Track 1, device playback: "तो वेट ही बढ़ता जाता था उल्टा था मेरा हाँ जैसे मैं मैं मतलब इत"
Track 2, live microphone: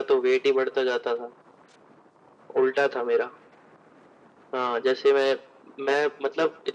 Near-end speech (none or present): none